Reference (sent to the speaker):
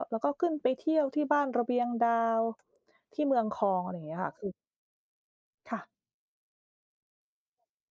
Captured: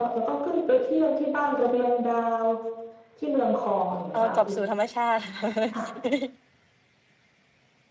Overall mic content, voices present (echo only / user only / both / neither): both